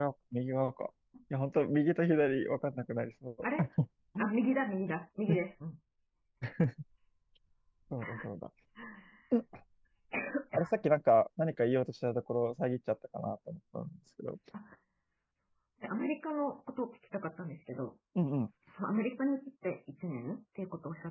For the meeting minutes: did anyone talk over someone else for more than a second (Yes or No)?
No